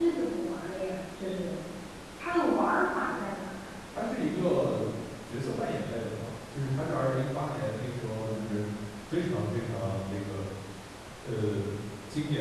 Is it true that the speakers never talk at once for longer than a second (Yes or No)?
Yes